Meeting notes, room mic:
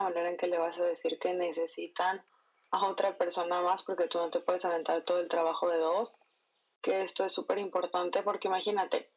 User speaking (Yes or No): No